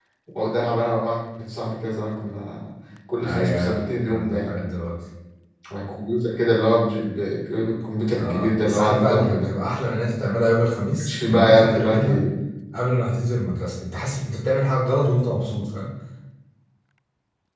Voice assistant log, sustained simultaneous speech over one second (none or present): present